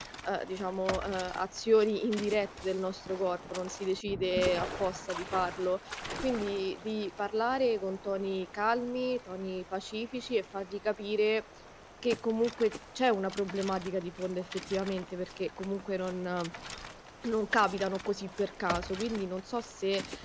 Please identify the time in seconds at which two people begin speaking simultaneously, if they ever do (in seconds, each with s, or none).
none